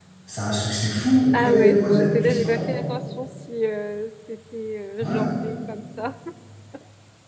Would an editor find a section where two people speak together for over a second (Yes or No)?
Yes